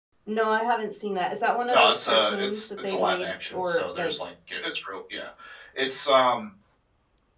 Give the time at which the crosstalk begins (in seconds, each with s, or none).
1.7 s